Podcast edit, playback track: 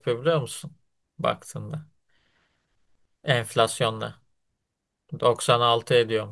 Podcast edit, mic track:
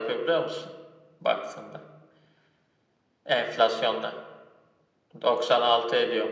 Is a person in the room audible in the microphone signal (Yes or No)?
No